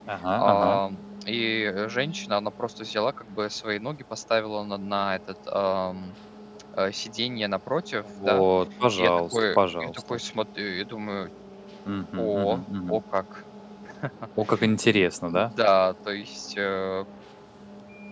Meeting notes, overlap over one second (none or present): present